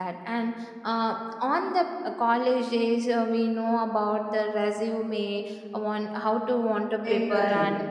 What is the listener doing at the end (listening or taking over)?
listening